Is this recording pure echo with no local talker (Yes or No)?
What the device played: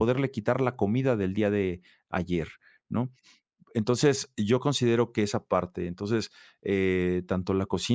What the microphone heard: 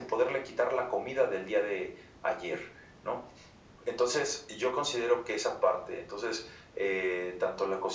Yes